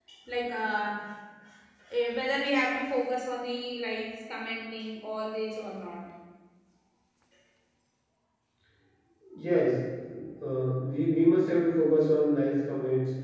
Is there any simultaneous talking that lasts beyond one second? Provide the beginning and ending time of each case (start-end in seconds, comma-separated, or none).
none